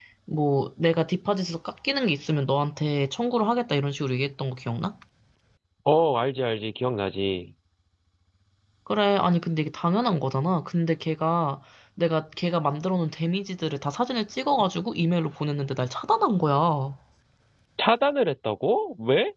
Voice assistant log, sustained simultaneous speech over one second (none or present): none